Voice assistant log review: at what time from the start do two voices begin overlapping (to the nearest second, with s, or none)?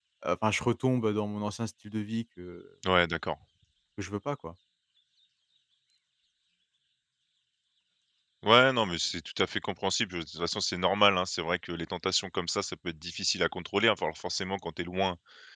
none